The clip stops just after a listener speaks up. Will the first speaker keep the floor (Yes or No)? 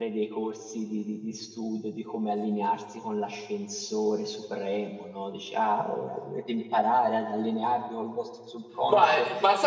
No